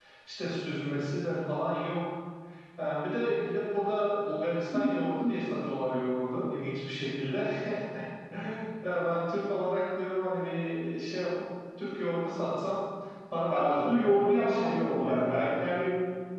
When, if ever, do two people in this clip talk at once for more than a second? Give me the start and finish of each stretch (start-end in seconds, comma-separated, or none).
13.5-15.4